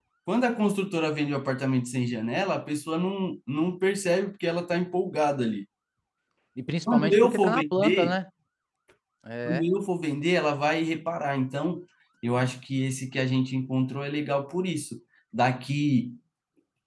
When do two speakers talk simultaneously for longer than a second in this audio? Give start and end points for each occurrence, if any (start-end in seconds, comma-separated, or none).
6.9-8.2